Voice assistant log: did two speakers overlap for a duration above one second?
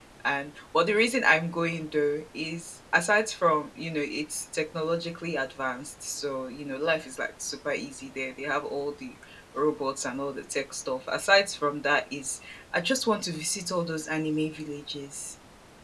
No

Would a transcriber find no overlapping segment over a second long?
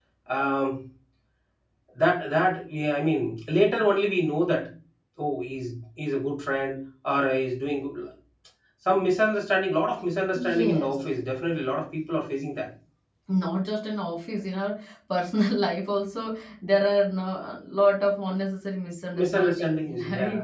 No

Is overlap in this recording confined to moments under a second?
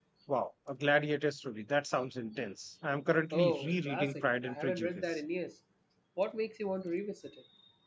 No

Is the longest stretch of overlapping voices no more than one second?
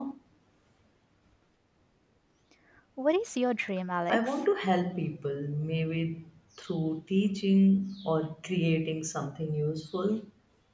Yes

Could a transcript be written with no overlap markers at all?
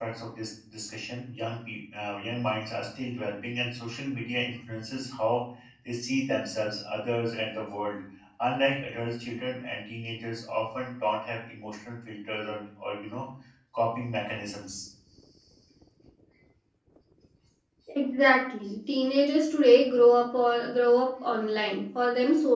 Yes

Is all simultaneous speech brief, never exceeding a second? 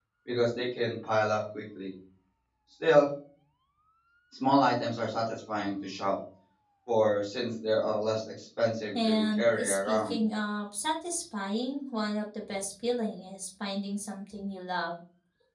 No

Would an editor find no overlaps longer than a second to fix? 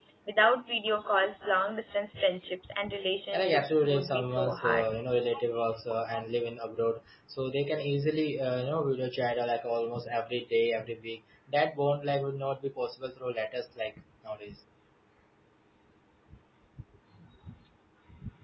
No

